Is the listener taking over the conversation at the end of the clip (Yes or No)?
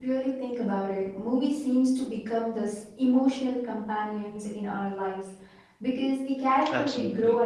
No